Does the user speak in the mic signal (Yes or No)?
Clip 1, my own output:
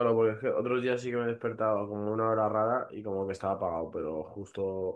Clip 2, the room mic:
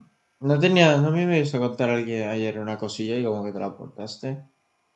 Yes